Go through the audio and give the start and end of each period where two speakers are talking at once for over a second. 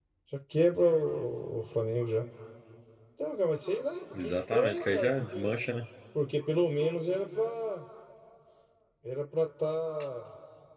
4.2-5.5

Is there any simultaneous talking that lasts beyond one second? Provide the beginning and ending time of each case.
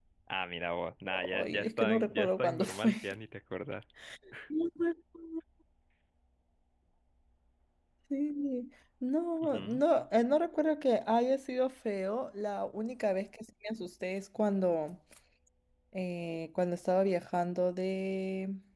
1.3-2.9

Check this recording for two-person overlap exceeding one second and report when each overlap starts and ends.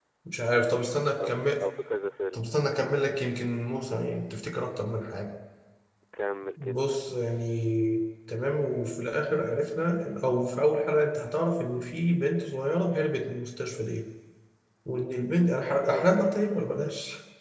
none

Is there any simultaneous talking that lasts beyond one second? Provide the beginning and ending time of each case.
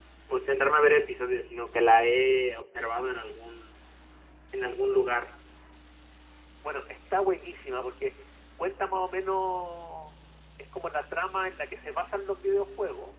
none

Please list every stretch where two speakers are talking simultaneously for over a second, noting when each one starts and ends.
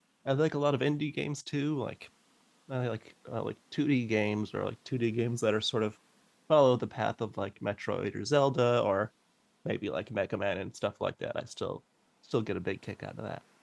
none

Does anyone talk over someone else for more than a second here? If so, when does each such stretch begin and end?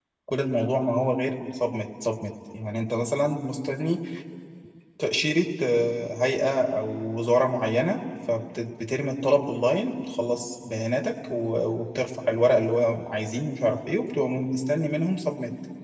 none

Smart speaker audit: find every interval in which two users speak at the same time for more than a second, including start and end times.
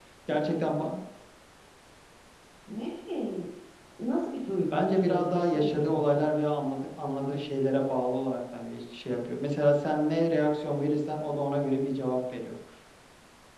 4.7-6.2

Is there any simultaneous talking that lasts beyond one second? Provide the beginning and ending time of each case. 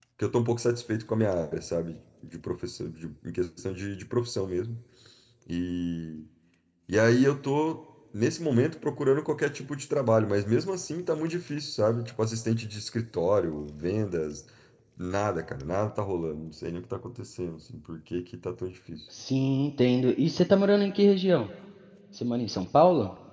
none

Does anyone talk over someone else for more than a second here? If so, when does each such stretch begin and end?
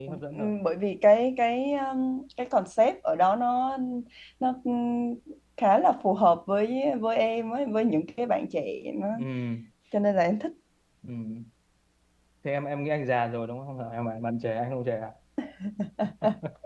none

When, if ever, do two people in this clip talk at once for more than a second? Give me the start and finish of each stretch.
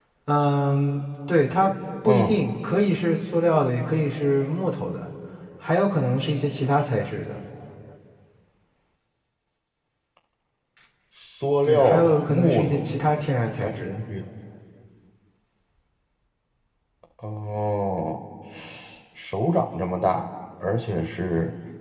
11.6-13.0

